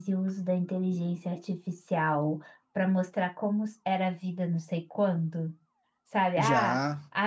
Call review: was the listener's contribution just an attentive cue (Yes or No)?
Yes